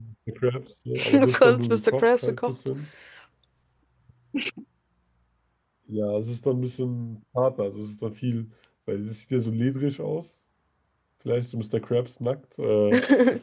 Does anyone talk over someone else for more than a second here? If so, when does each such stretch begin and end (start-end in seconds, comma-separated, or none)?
1.1-2.5